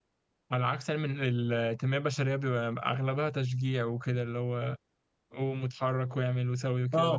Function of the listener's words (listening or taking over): taking over